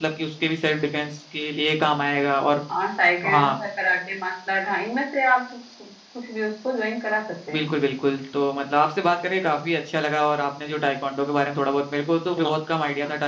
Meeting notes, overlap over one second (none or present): none